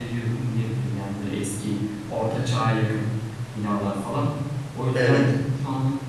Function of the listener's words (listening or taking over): listening